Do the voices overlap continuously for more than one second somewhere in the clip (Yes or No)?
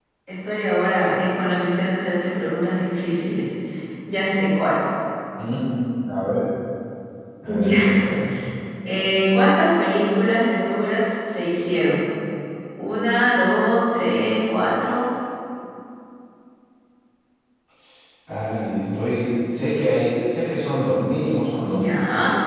No